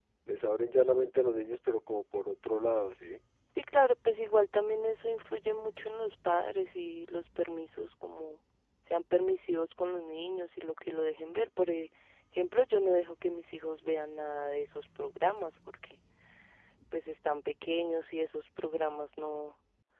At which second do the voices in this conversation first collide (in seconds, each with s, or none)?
none